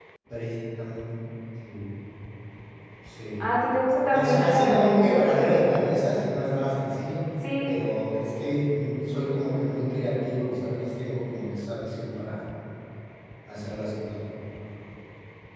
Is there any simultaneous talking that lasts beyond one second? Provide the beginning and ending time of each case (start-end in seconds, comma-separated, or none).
4.1-5.5